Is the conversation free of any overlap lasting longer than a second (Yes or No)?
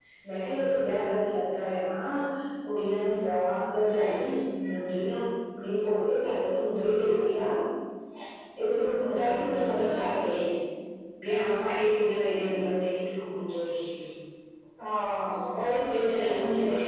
No